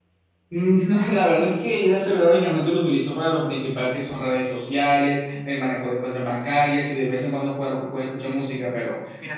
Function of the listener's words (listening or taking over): taking over